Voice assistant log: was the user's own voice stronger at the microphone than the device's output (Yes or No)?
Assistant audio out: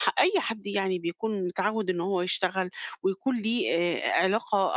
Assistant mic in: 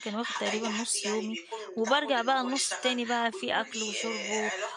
Yes